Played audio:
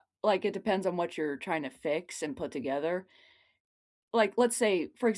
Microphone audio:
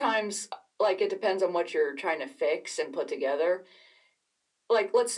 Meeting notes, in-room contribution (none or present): none